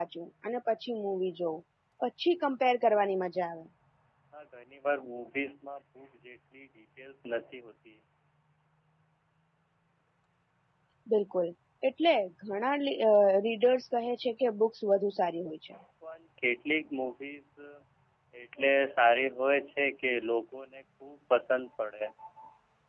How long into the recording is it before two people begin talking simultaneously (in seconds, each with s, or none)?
none